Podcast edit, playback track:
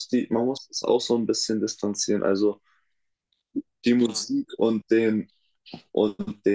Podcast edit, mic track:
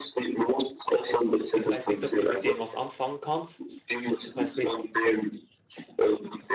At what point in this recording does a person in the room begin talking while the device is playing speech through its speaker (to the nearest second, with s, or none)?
2 s